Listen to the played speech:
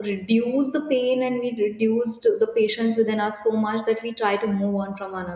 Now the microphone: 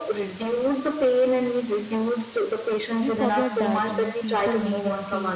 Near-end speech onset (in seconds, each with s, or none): 3.0 s